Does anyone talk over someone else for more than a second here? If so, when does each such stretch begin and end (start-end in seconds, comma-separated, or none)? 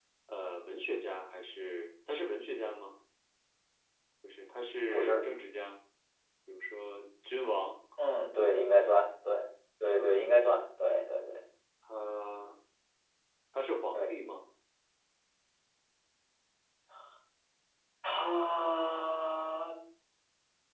none